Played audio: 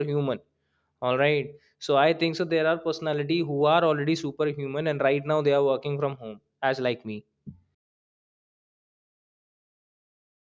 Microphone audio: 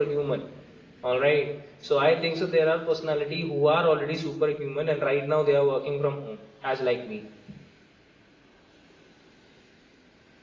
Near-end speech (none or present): none